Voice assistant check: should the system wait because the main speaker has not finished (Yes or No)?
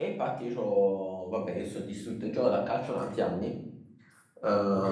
Yes